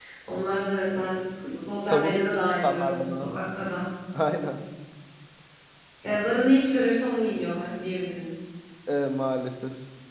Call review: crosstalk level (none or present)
present